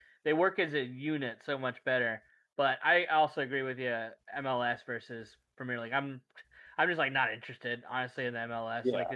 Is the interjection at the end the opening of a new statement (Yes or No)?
No